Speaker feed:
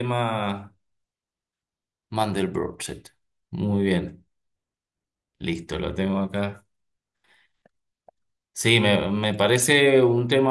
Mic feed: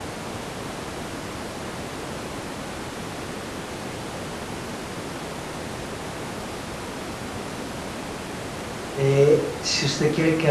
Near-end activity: present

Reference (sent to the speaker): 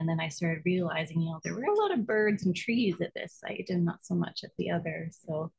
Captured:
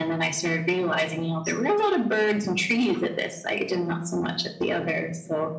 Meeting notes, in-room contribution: none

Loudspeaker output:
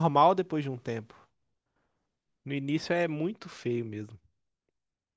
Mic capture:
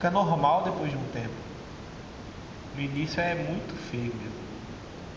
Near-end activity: none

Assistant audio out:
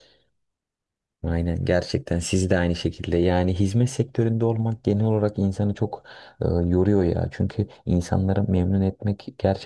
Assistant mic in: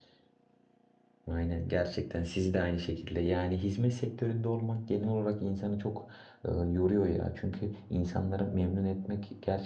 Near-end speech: none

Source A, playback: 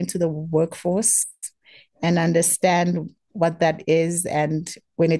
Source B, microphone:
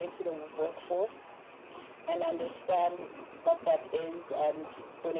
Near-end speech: none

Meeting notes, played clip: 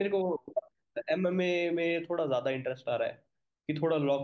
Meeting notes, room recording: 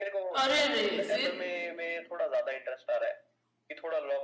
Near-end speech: present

